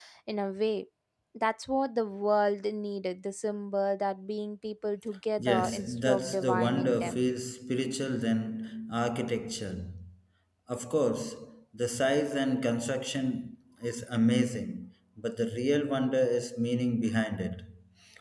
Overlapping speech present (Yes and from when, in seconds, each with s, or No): Yes, from 5.4 s